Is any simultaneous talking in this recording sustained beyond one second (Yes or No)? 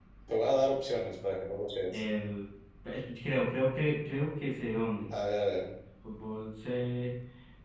No